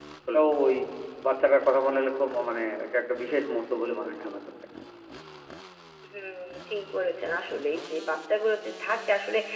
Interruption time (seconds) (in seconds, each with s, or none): none